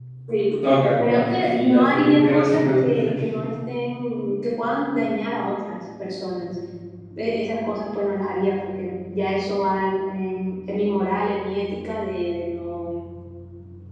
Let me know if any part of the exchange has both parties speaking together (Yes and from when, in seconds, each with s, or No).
Yes, from 1.0 s